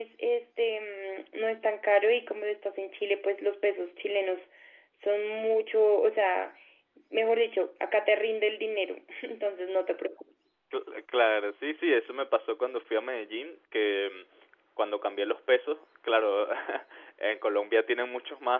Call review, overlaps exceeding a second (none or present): none